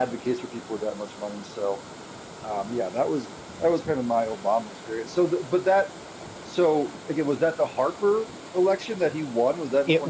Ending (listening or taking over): taking over